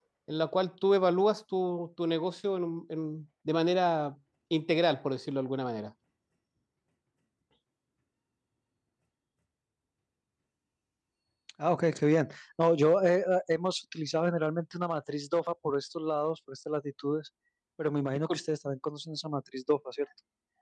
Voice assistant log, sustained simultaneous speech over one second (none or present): none